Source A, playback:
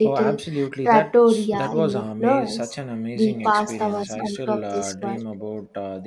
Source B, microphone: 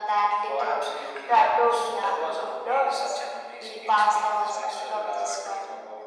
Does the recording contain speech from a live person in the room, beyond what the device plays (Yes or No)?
No